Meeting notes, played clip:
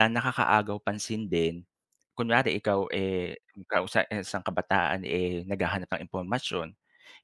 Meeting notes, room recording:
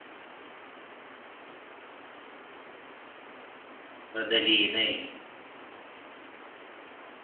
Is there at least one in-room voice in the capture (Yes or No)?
Yes